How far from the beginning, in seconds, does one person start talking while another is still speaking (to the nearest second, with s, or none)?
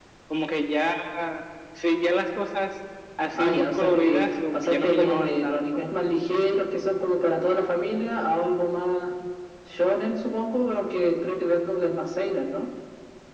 3 s